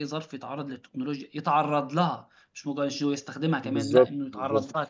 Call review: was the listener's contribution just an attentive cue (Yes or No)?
No